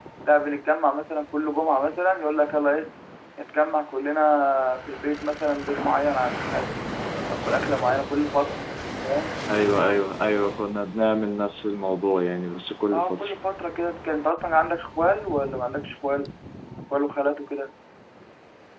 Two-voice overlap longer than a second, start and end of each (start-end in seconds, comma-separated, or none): none